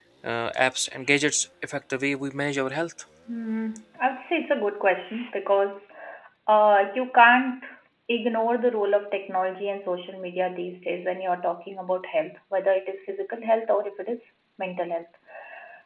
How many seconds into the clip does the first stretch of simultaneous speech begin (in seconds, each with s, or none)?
none